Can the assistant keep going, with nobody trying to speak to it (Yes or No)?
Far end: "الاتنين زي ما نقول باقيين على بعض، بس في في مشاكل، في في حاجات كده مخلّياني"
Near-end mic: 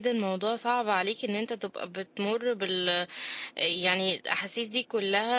No